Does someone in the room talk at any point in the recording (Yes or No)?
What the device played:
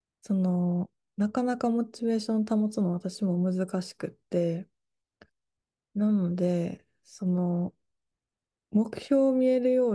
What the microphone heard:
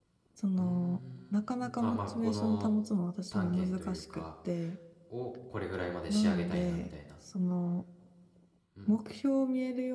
Yes